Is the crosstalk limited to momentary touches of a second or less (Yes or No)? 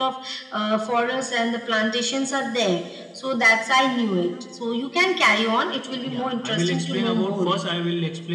No